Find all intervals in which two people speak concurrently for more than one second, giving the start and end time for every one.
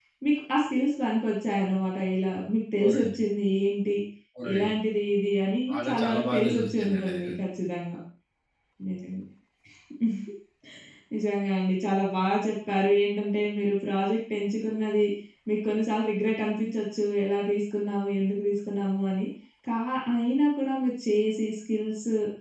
5.7-7.3

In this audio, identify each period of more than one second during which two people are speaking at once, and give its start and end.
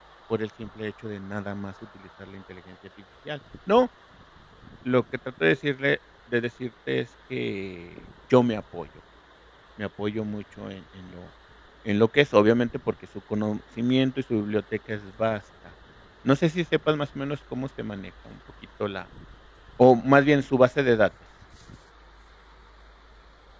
none

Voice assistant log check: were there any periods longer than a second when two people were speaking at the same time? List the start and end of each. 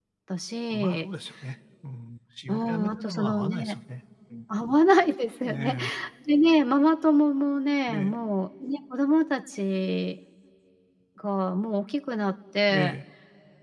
2.5-3.8

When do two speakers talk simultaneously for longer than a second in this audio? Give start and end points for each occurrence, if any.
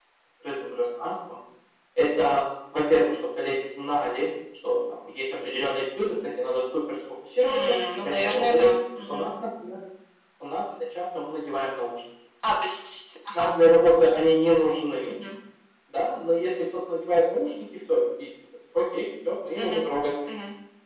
7.5-8.7

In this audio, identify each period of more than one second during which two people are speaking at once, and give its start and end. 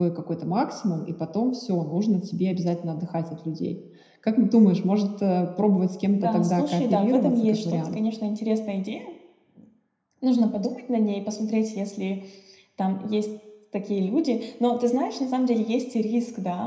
6.2-8.0

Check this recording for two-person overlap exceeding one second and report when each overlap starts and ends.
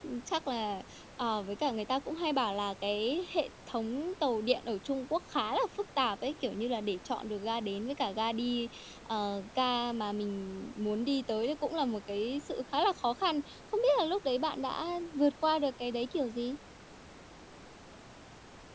none

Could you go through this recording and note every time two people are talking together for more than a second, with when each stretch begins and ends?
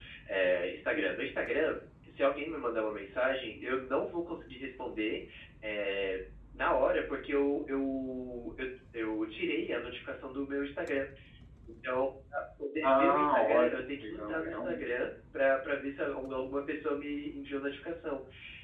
12.8-14.8

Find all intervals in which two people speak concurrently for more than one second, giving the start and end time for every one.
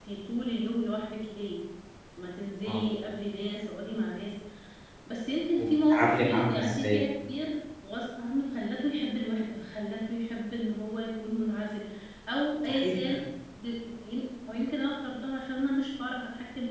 5.6-7.0

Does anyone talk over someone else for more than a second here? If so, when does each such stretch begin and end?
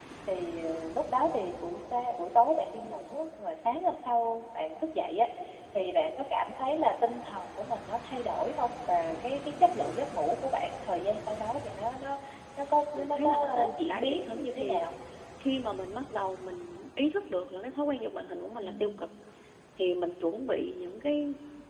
13.0-14.9

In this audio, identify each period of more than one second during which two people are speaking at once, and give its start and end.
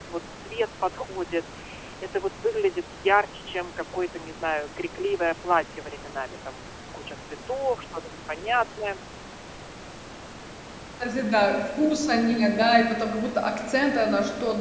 none

